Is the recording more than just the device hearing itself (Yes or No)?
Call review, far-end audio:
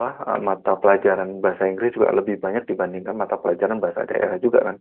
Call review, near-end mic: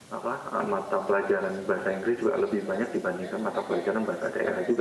Yes